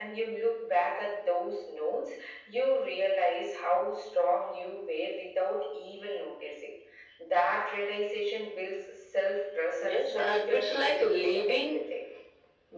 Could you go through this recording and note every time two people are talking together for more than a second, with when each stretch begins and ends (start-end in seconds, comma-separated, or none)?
9.9-11.7